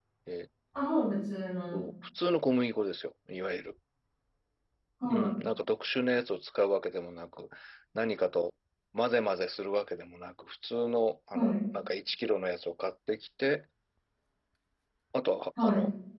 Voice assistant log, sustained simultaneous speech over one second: none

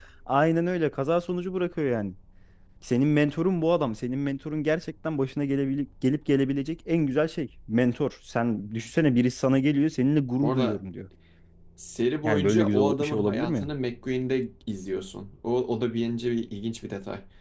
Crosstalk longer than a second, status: present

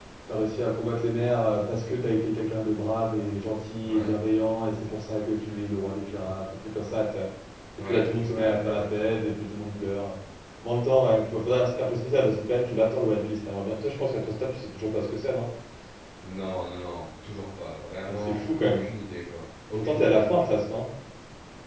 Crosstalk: present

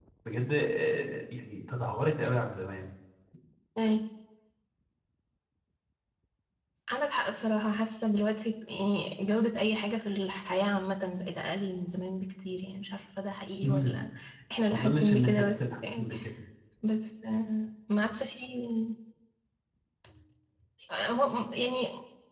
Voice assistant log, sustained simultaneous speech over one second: present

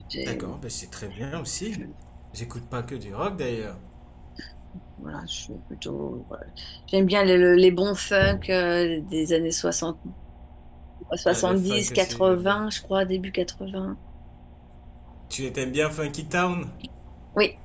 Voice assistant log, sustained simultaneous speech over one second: present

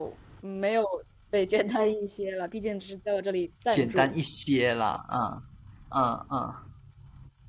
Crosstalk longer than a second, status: none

